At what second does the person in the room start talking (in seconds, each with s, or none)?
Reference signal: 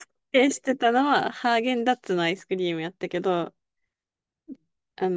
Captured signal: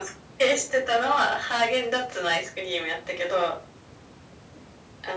none